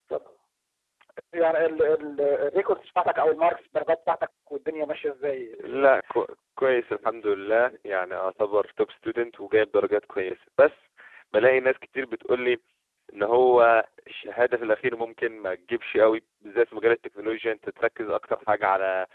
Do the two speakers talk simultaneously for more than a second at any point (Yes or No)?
No